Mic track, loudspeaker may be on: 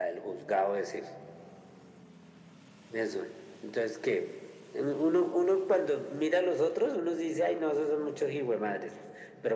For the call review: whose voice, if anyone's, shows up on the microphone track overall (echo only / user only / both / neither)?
echo only